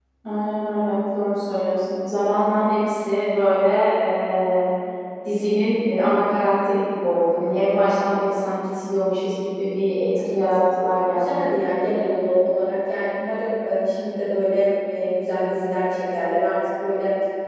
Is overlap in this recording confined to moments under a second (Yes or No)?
Yes